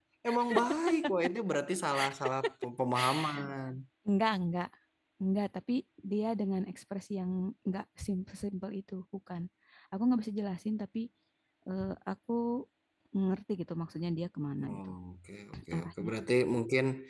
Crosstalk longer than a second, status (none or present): none